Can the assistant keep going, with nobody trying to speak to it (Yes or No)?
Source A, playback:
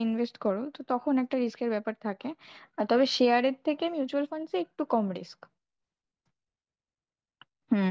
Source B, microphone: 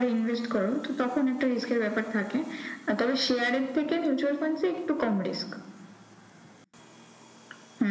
Yes